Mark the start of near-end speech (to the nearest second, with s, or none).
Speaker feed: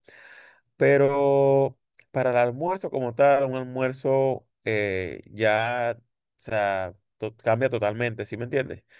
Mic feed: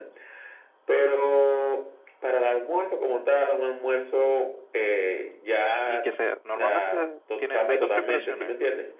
6 s